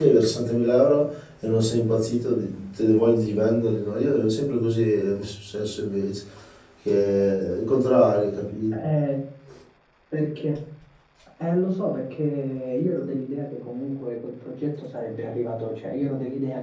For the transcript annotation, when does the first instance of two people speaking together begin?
none

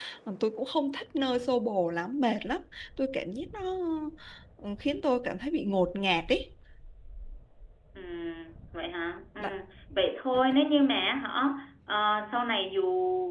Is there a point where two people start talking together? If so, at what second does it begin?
none

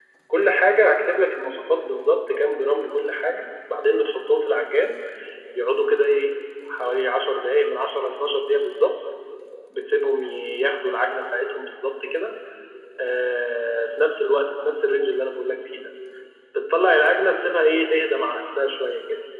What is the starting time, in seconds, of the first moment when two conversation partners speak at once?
none

